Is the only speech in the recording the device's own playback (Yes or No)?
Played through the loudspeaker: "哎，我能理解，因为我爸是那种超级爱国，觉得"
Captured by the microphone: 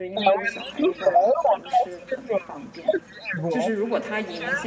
No